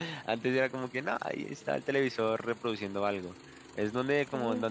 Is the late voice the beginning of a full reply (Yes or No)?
No